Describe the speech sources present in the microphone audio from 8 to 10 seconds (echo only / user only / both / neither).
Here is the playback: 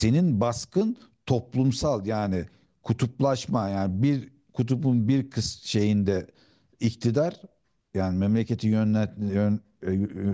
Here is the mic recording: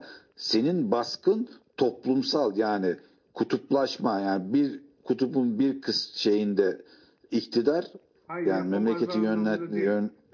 both